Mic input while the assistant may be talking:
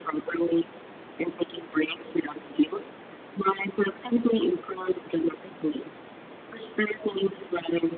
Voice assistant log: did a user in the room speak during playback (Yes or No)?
No